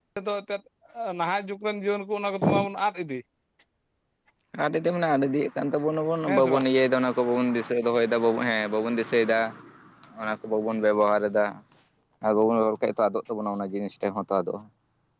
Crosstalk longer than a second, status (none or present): none